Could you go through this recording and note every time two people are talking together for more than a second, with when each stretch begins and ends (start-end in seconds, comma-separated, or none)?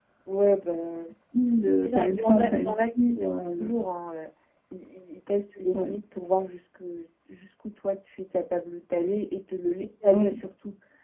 1.8-3.1